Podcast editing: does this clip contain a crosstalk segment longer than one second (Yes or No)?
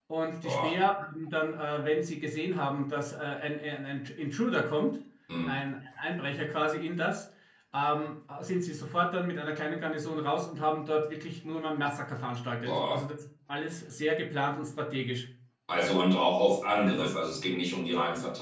No